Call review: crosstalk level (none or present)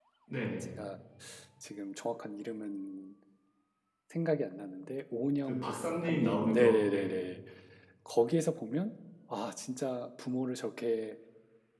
present